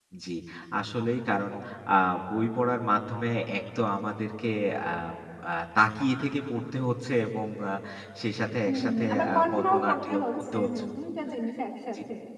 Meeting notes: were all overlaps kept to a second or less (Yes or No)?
No